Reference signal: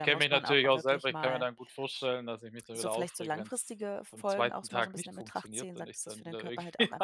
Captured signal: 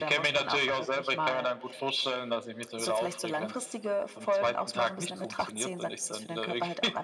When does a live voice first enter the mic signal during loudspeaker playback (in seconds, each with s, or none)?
none